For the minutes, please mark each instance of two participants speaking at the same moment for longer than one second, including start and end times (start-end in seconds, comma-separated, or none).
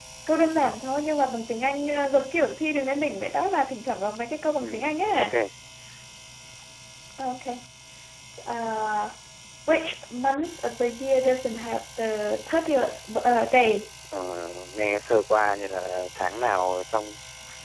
none